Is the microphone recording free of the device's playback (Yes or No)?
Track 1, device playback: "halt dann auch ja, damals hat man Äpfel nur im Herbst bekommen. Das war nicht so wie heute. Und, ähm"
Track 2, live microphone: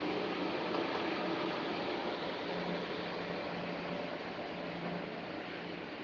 Yes